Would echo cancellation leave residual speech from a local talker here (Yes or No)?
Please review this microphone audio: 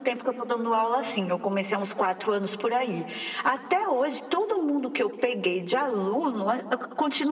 No